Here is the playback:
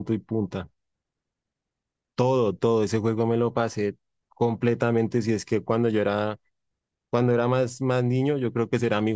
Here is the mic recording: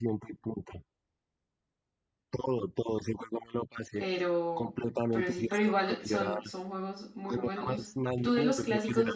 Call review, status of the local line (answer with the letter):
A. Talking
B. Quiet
A